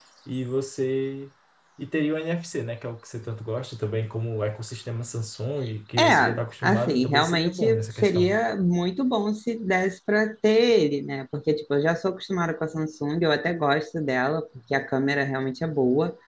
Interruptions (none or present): present